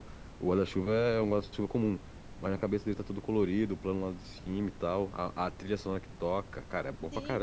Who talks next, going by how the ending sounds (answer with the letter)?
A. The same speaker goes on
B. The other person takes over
B